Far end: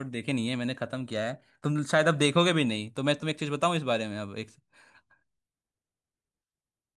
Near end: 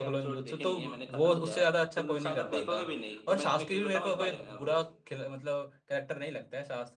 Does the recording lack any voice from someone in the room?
No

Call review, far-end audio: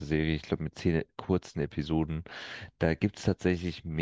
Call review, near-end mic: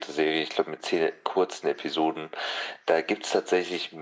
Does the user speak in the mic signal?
No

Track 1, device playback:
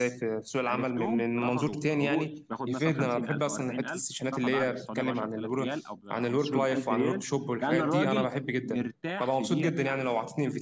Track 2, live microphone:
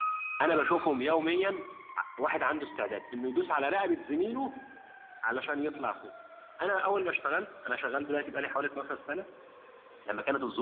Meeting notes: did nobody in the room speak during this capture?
No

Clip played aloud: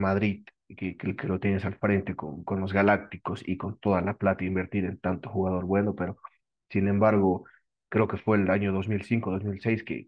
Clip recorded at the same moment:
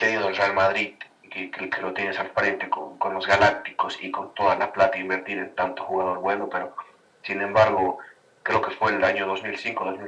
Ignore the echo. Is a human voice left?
No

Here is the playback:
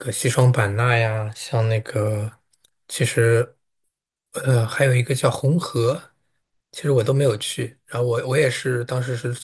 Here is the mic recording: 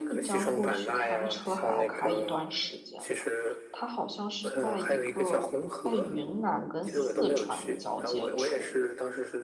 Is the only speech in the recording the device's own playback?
No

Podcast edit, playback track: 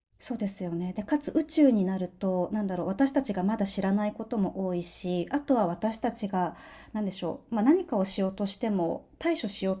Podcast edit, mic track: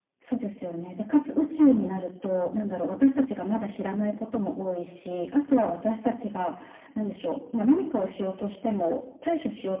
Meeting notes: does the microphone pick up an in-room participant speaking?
No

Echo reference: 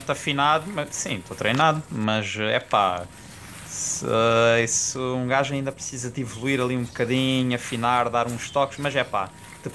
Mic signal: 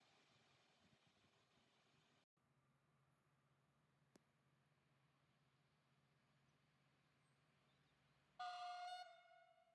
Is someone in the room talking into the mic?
No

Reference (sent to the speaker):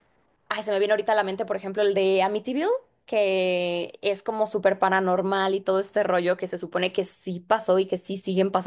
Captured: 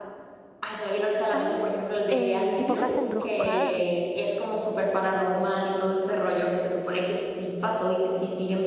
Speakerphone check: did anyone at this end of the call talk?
Yes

